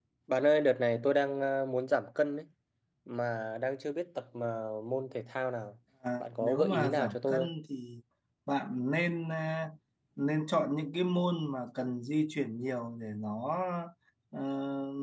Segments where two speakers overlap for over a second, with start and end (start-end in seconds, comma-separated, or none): 6.2-7.5